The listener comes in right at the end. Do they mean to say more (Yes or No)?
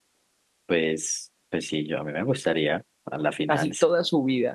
Yes